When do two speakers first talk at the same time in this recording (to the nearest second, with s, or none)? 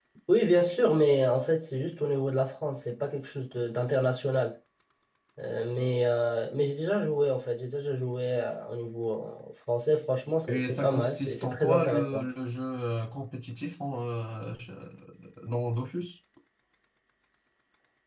10 s